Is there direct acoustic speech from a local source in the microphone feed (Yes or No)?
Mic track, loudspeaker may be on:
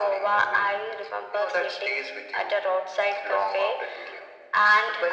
No